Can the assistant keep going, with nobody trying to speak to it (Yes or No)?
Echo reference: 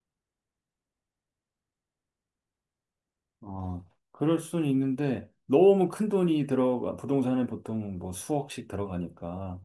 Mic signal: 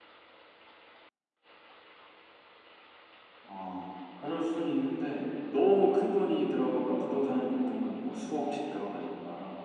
Yes